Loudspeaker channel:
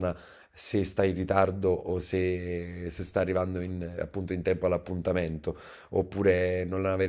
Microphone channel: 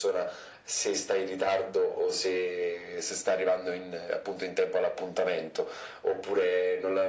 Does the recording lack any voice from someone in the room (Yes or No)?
Yes